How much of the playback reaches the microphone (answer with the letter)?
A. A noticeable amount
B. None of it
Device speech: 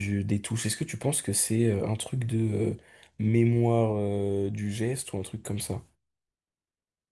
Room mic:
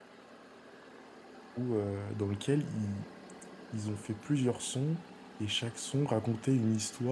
B